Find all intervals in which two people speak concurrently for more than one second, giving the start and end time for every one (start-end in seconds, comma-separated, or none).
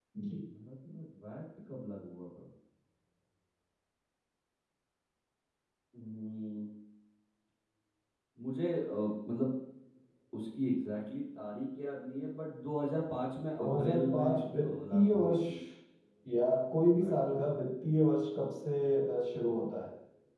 13.6-15.4